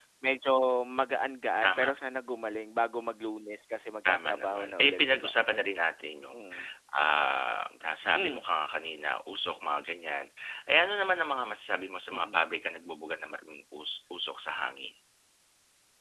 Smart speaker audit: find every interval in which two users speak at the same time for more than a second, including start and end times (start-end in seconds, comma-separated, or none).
4.1-5.3